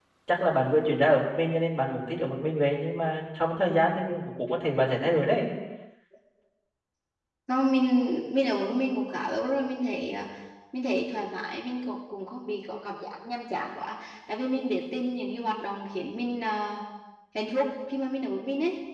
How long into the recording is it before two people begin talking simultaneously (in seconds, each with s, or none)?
none